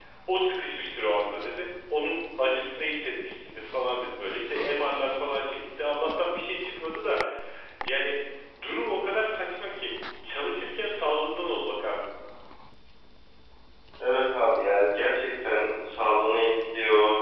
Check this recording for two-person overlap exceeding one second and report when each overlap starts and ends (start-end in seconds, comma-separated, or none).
none